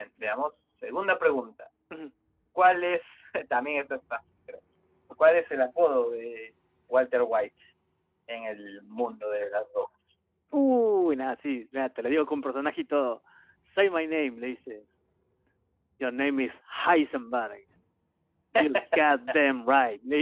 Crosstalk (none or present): none